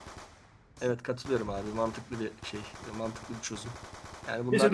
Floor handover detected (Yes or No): Yes